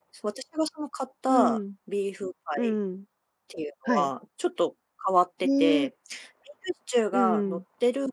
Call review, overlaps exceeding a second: none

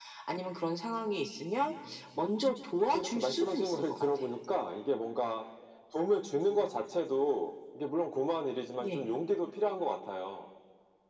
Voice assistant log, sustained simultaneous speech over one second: present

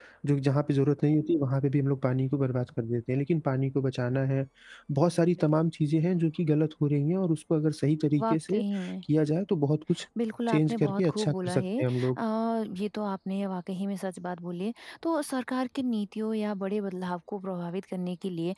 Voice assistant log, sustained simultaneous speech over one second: present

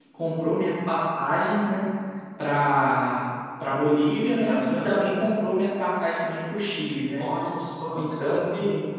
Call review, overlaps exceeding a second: none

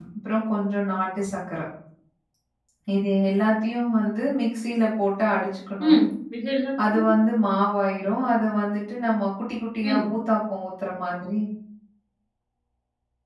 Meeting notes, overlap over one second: none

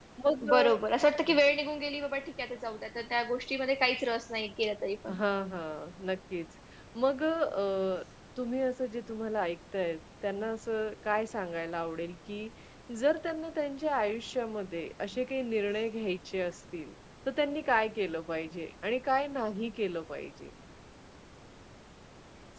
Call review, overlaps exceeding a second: none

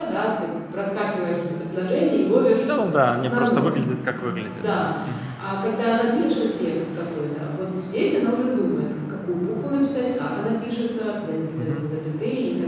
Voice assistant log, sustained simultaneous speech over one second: present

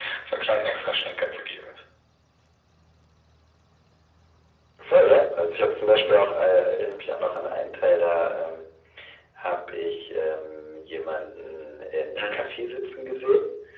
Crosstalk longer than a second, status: none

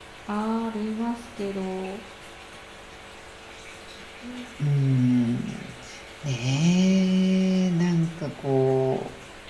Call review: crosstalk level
none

